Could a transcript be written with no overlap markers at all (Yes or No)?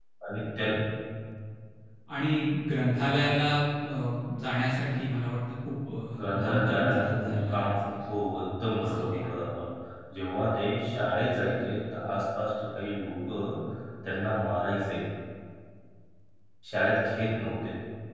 No